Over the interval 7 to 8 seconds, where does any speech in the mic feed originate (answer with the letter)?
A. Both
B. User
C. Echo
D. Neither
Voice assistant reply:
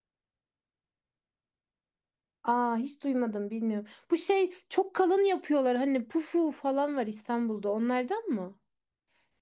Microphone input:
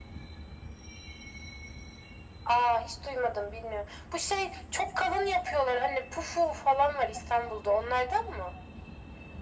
C